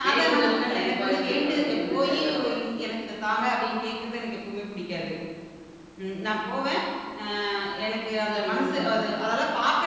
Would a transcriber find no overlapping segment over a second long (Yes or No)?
No